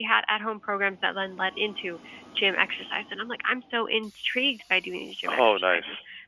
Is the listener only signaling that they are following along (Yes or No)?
Yes